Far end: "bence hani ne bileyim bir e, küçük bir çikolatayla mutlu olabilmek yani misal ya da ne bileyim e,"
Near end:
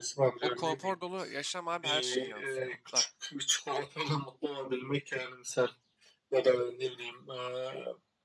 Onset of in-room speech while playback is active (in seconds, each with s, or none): 0.4 s